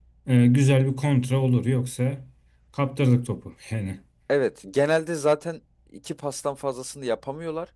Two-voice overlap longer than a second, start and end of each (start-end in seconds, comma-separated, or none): none